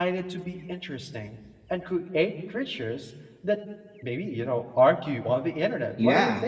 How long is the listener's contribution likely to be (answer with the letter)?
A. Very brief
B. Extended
B